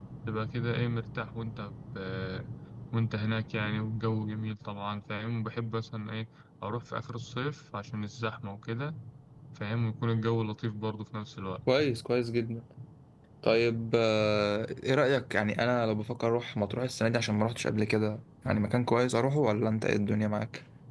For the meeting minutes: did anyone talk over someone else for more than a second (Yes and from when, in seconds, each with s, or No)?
No